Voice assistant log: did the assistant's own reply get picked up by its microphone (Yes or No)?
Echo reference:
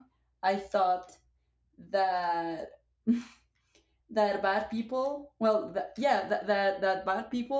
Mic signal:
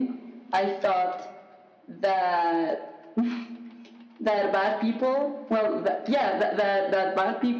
Yes